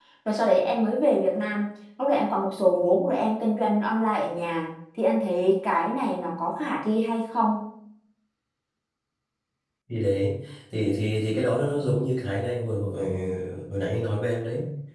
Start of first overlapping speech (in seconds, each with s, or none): none